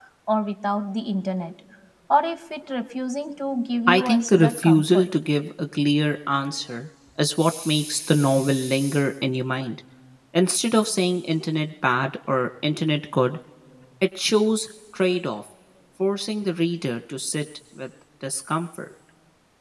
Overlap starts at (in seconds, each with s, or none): 3.9 s